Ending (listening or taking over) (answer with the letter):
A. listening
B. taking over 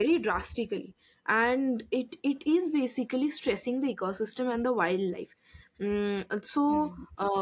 B